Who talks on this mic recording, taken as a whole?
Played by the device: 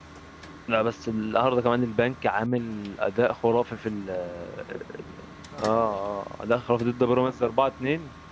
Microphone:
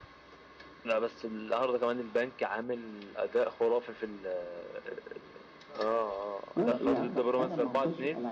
both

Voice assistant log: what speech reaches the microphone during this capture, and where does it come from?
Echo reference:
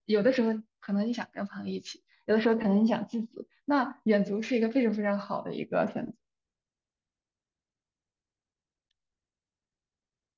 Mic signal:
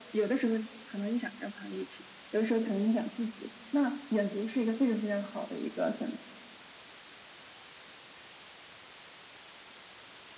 echo only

